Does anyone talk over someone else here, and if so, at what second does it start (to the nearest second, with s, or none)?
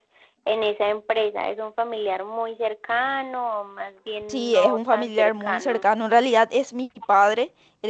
4 s